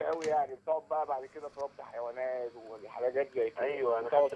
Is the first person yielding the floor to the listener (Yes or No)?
Yes